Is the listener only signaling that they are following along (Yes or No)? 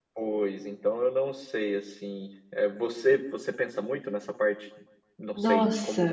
Yes